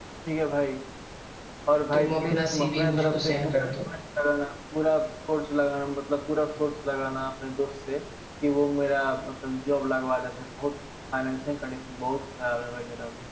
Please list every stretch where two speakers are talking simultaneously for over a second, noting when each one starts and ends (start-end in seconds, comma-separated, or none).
1.9-3.7